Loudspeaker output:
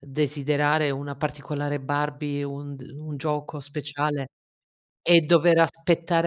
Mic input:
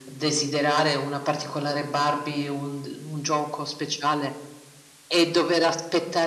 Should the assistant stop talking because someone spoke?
No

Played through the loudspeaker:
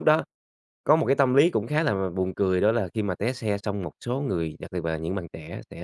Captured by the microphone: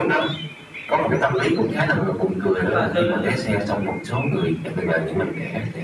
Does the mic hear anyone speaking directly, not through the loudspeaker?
Yes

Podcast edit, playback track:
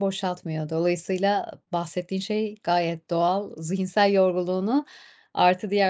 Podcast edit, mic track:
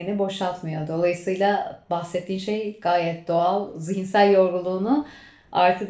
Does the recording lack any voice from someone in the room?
Yes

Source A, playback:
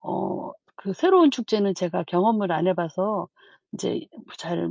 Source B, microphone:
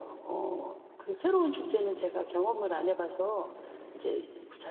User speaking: No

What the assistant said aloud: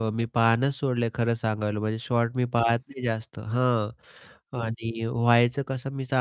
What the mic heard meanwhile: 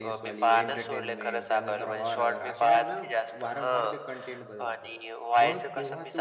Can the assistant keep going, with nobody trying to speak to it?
No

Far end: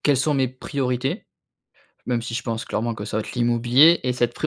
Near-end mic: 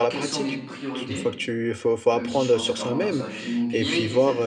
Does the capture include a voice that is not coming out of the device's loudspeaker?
Yes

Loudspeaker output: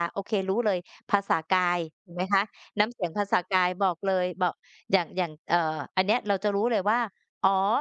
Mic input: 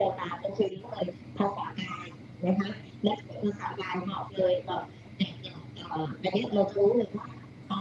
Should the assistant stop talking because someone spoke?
No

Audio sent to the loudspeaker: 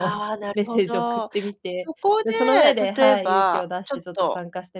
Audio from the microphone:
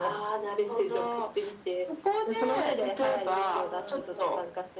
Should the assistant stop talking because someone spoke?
Yes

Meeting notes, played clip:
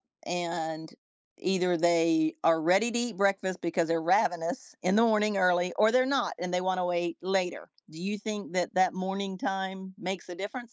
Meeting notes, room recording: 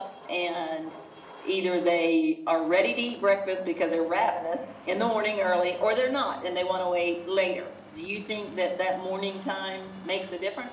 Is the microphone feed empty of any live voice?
Yes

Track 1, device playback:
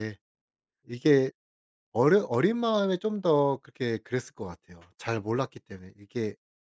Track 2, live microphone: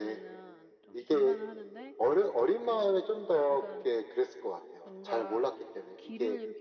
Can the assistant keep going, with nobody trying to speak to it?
No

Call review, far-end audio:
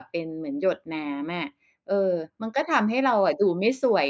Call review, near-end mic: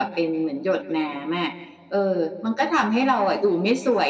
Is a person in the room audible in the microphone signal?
No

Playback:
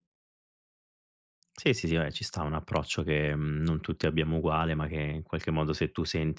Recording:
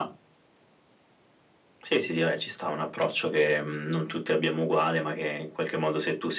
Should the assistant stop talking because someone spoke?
No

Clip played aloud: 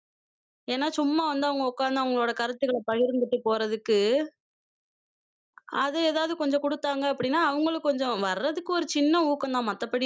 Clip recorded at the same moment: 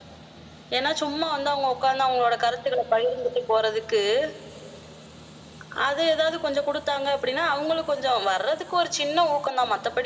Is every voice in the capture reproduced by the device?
Yes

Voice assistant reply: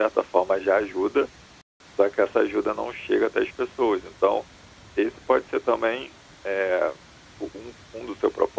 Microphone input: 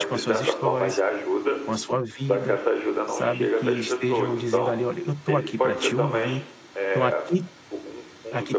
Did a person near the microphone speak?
Yes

